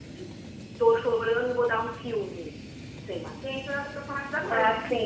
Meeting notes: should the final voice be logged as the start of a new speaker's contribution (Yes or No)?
Yes